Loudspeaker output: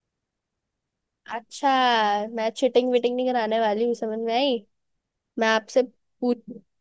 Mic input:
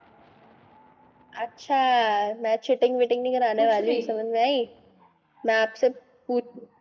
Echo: present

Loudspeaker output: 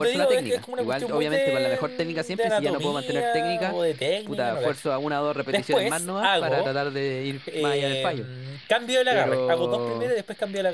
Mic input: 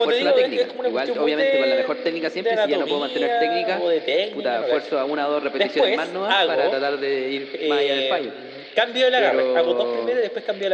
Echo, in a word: present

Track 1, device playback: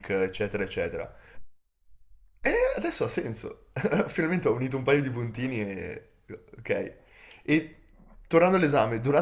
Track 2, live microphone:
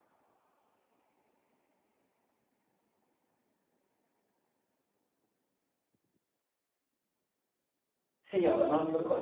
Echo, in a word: none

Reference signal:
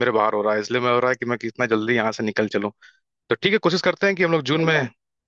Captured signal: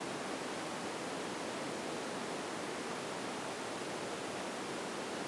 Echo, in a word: none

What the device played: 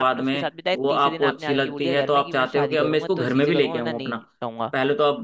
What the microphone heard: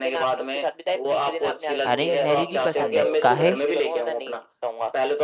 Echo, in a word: present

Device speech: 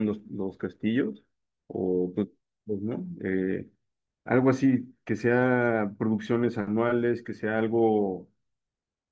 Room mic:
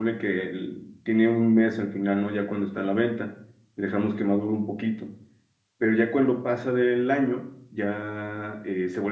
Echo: none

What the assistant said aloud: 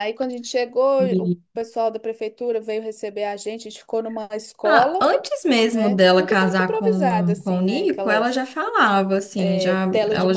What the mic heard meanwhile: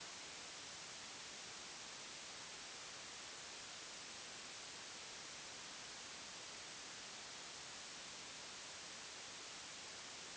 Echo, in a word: none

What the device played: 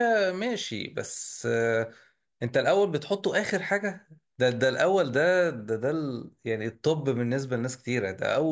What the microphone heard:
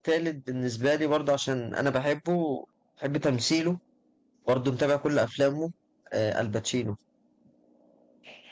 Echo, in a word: none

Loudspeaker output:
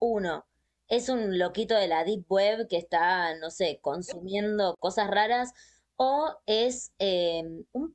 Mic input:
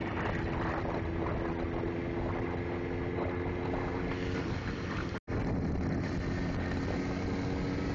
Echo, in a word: none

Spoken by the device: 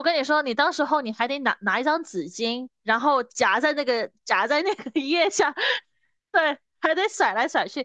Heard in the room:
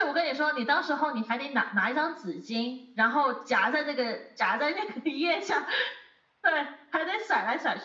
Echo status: present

